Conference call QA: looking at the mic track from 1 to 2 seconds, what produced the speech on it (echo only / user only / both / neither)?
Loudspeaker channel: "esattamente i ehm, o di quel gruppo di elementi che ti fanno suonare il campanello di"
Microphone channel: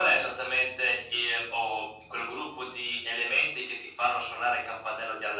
echo only